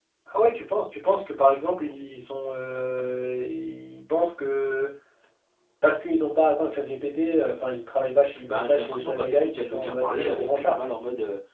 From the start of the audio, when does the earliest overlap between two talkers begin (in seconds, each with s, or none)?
8.5 s